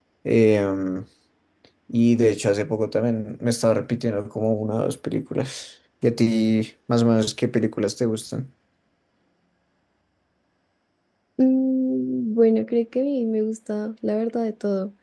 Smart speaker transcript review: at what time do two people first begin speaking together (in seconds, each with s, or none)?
none